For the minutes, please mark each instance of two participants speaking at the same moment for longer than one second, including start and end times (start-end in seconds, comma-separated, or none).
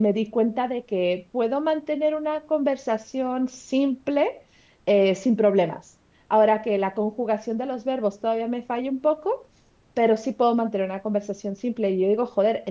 none